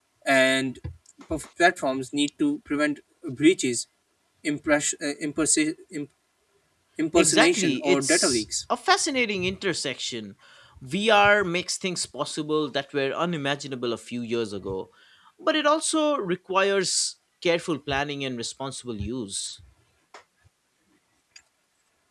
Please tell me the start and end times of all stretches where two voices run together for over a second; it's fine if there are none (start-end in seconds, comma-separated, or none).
7.2-8.4